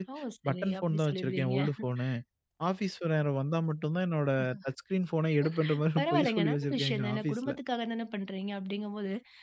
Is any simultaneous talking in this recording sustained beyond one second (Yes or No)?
Yes